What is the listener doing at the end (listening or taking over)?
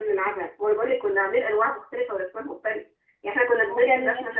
listening